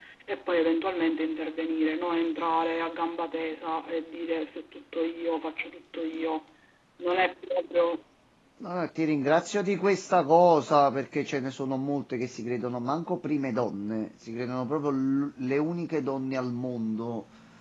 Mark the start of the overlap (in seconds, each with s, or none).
none